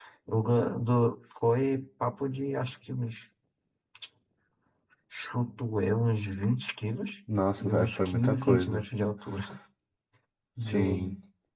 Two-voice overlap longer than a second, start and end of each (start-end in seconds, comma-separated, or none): 7.6-8.8